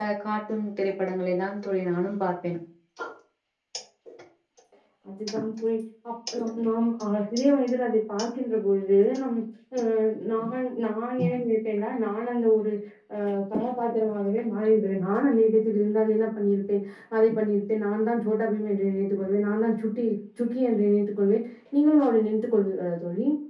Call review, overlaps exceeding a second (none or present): none